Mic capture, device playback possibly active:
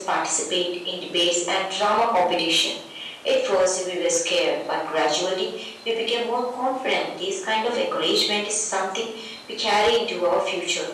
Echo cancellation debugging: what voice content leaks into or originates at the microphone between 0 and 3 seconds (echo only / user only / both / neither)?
echo only